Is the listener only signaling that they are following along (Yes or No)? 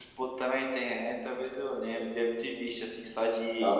No